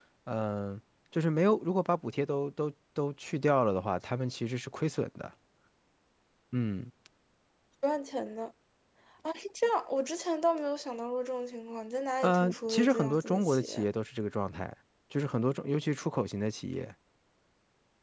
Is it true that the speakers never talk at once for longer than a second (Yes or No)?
No